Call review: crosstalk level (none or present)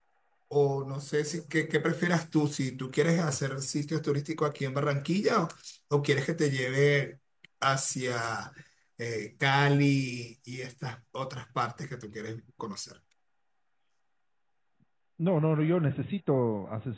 none